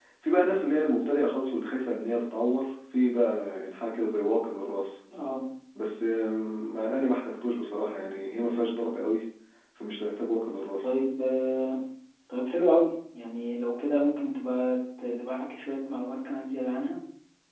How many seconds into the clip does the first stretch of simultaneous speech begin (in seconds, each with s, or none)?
none